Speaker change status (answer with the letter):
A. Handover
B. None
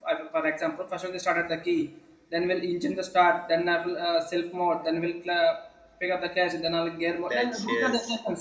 B